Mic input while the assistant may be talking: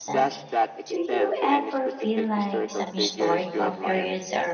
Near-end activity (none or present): present